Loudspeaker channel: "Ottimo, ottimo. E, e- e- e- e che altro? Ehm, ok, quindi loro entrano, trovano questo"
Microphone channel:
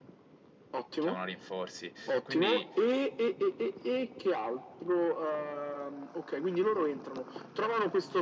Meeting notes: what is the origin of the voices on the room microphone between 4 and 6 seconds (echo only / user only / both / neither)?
echo only